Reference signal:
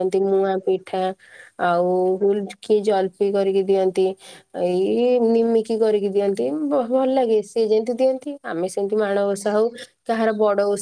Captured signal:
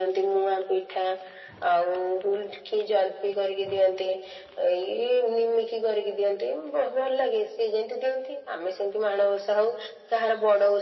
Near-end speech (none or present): none